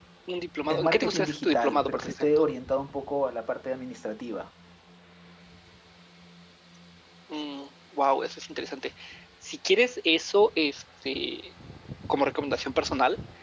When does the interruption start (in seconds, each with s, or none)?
0.7 s